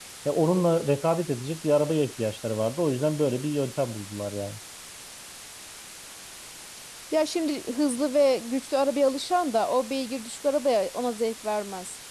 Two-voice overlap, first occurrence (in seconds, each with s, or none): none